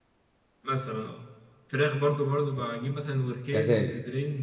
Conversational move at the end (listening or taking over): listening